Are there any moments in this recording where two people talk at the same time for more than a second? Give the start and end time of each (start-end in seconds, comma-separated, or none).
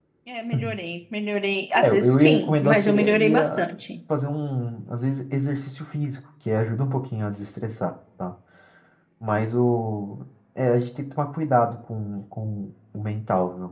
1.8-3.6